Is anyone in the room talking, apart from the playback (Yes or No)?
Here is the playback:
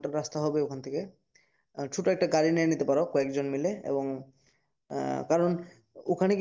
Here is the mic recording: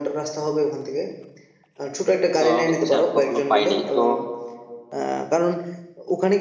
Yes